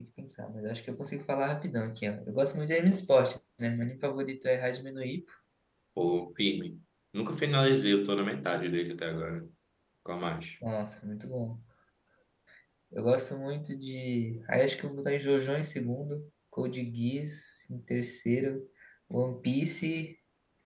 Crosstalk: none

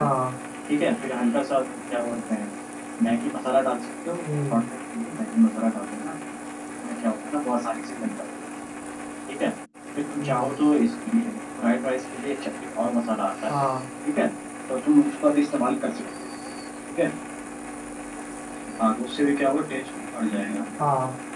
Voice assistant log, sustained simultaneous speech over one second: none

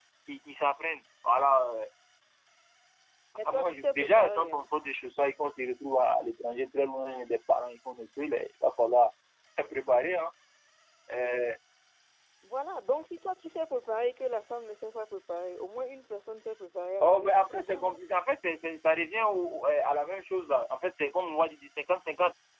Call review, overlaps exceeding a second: present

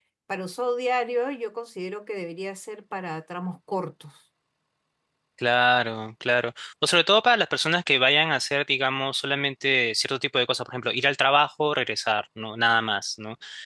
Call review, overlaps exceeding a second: none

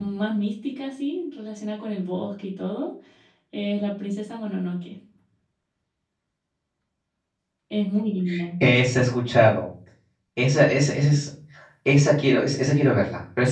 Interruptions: none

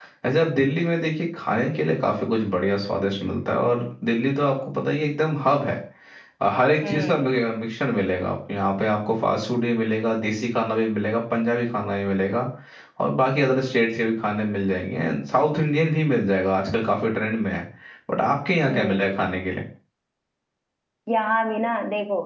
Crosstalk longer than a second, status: none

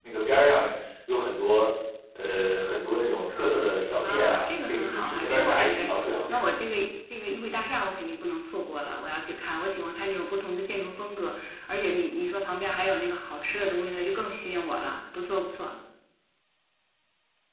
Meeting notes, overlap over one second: present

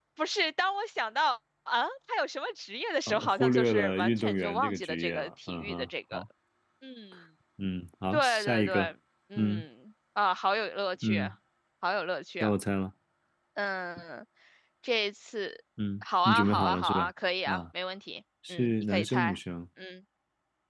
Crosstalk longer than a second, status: present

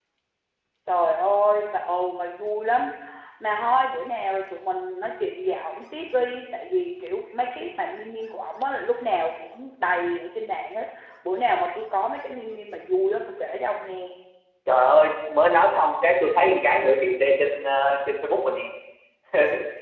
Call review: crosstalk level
none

